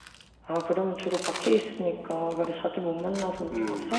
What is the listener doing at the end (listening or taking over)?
taking over